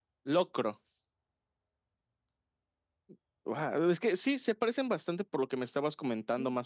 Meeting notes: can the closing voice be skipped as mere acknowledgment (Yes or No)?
No